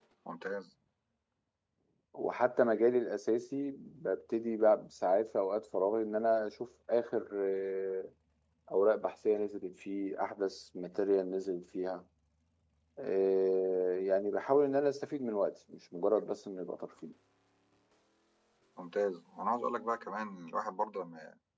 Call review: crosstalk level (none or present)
none